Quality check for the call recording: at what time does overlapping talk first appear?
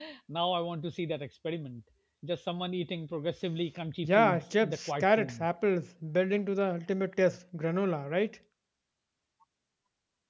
4.0 s

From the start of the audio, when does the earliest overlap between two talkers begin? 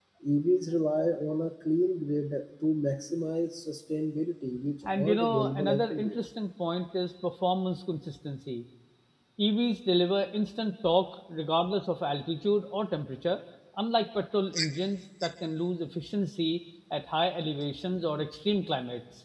4.8 s

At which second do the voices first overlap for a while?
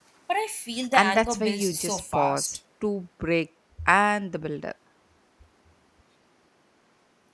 0.9 s

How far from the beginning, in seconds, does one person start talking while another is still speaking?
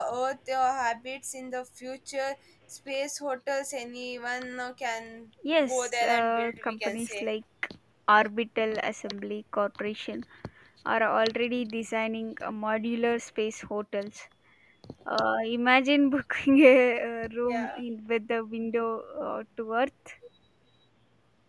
5.6 s

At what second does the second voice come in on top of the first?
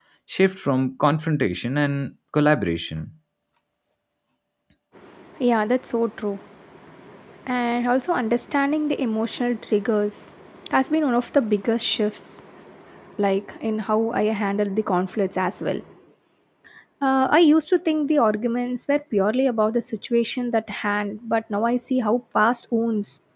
none

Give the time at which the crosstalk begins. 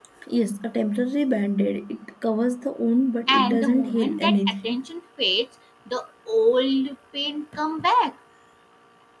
3.3 s

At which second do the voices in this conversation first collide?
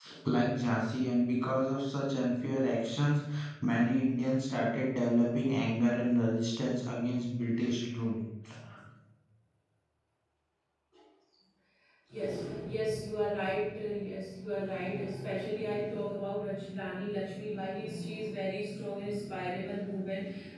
none

